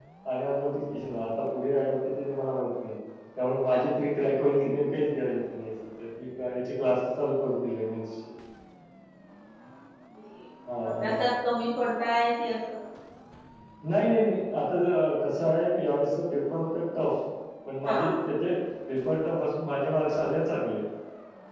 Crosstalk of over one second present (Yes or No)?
No